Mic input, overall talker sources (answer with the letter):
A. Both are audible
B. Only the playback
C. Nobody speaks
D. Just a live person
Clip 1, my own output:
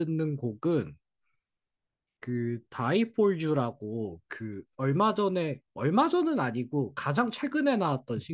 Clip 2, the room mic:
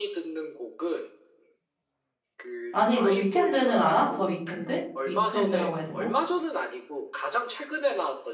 A